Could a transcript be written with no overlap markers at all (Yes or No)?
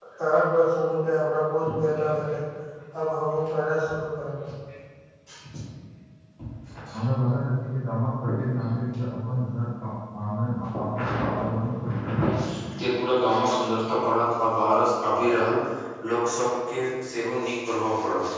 Yes